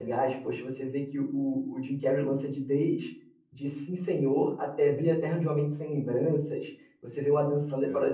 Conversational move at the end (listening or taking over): listening